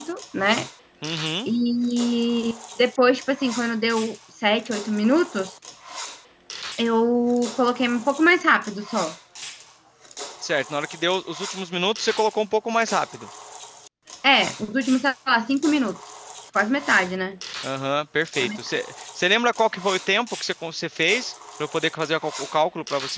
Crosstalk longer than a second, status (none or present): none